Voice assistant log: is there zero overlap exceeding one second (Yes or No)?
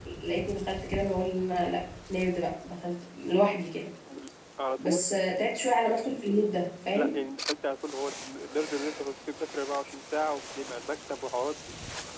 Yes